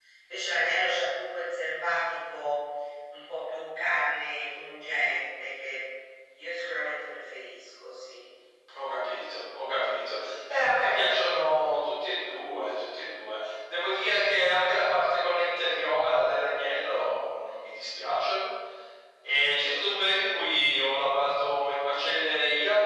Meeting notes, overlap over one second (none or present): none